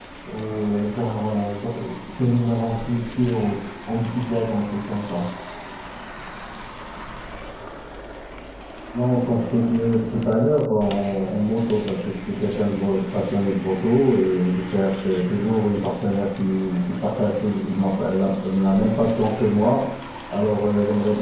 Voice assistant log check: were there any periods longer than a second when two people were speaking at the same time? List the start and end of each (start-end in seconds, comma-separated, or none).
none